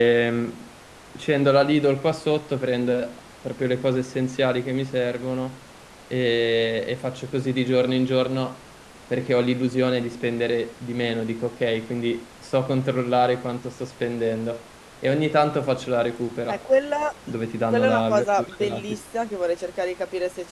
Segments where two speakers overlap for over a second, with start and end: 17.7-19.0

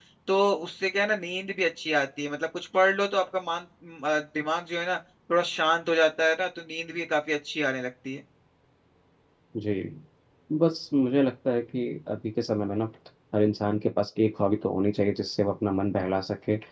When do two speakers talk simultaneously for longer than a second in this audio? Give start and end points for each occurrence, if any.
none

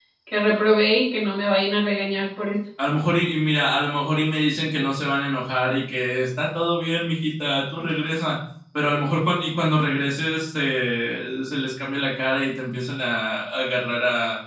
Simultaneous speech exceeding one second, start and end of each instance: none

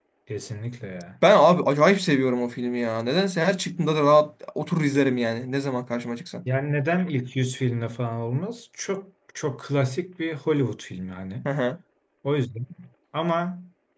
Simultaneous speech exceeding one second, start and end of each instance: none

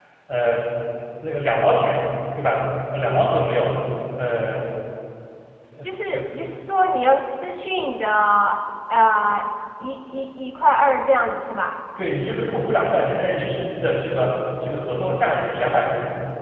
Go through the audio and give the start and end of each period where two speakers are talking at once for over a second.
none

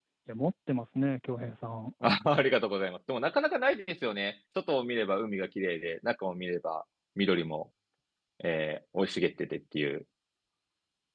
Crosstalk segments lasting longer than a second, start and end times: none

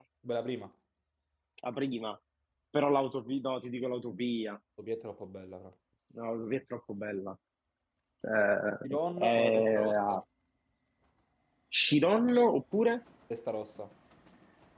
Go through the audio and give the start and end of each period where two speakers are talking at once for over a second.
8.8-10.2

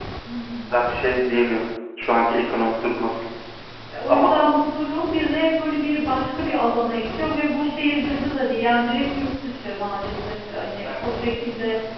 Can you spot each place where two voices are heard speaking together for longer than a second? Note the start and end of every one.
none

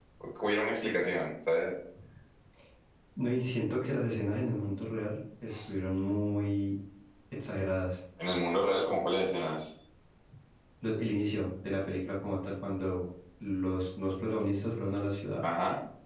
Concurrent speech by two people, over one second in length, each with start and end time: none

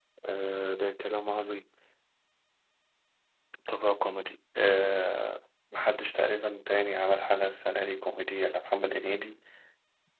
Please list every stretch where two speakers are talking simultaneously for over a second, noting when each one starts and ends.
none

